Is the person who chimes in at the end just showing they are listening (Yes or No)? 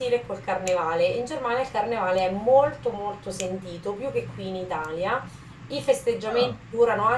Yes